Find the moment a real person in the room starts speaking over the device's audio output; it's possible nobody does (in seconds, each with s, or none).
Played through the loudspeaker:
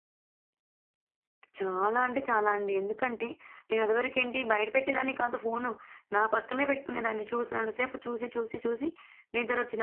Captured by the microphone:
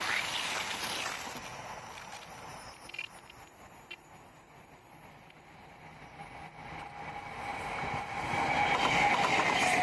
none